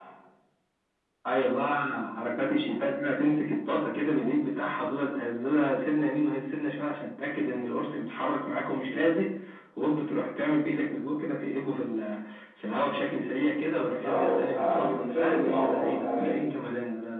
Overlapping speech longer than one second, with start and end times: 14.0-16.3

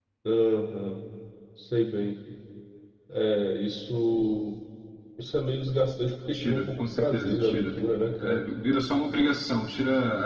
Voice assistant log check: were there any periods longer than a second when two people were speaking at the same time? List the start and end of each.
6.3-7.7

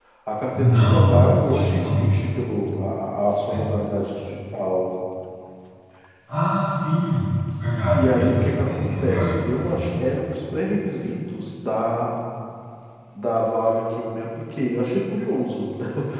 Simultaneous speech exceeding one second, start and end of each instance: 0.5-2.0, 7.9-9.9

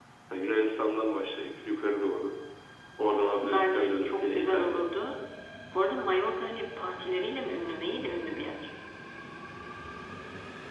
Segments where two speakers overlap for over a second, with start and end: 3.4-4.8

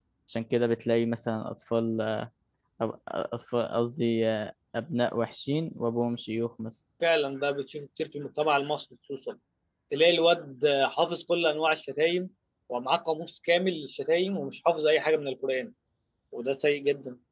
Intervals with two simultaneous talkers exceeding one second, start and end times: none

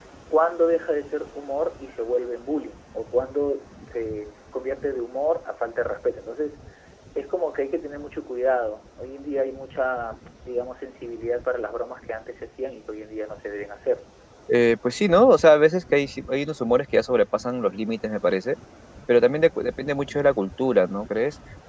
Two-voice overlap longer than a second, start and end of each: none

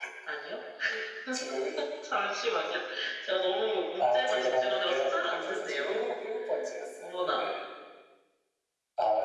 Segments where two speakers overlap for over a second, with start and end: 4.0-6.2

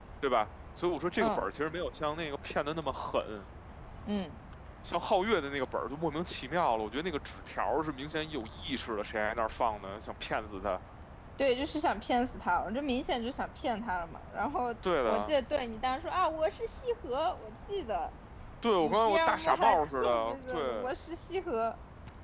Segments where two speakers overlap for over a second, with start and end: 18.8-20.9

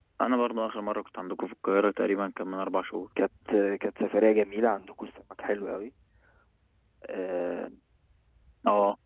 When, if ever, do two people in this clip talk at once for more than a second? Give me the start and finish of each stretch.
none

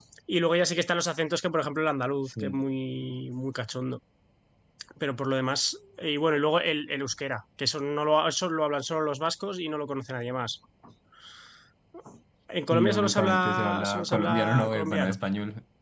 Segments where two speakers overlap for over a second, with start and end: 12.7-15.2

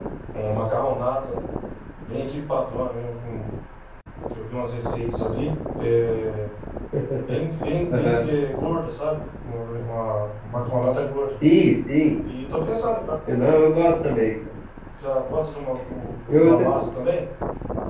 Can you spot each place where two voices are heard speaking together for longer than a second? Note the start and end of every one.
none

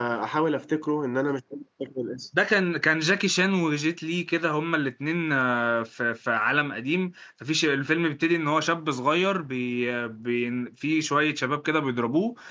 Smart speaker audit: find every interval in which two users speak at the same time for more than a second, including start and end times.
none

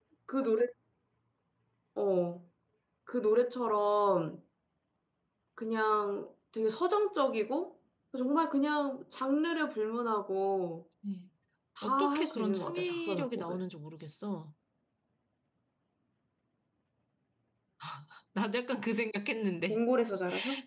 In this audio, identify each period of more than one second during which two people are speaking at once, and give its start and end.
11.8-13.6

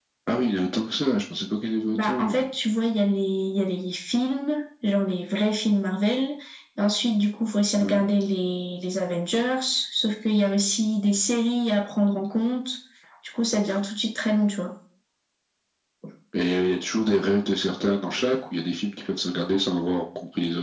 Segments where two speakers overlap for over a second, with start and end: none

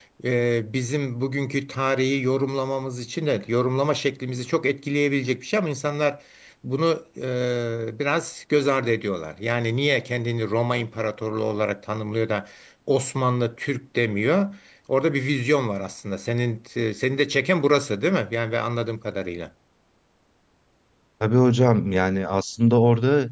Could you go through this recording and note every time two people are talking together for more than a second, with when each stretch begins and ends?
none

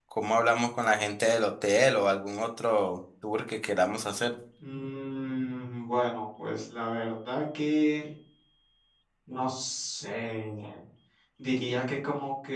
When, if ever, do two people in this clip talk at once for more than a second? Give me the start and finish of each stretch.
none

